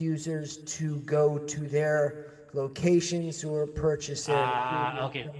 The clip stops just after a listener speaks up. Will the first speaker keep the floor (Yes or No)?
No